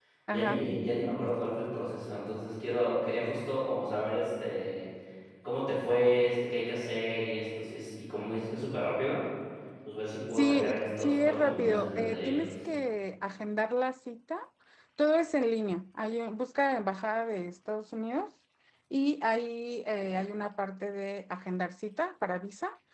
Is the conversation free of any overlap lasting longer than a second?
No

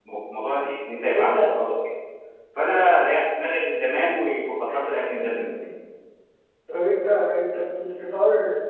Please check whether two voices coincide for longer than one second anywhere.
No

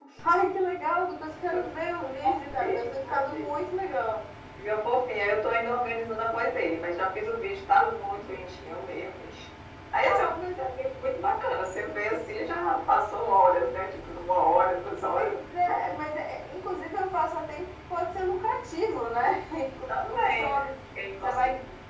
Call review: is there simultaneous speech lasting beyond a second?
Yes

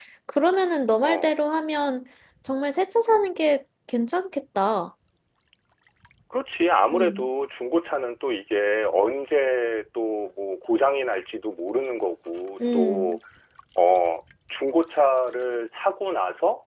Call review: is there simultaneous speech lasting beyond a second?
No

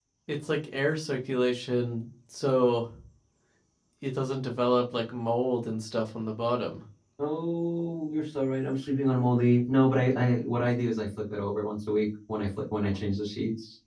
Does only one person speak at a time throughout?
Yes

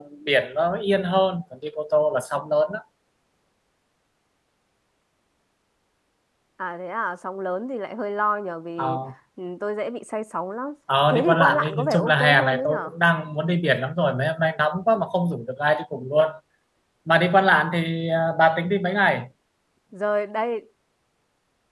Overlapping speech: Yes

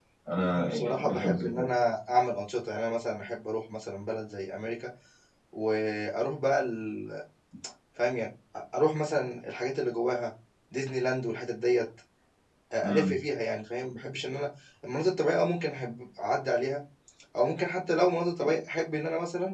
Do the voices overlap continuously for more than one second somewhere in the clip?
Yes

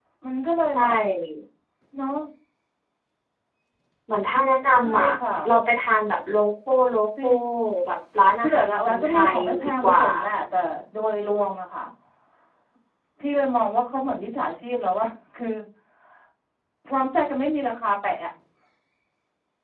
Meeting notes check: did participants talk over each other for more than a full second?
Yes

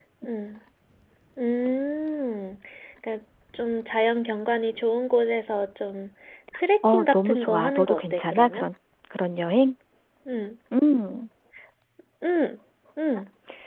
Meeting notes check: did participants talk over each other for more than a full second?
Yes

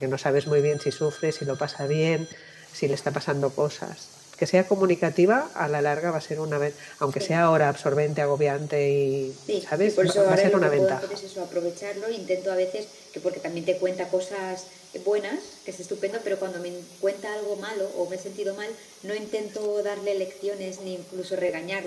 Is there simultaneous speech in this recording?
Yes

